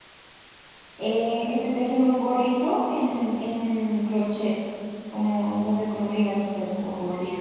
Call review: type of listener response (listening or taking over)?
taking over